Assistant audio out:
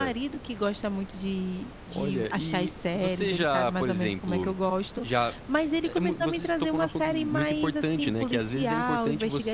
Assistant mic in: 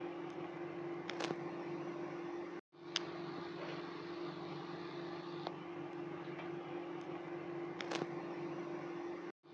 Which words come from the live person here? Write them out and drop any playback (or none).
none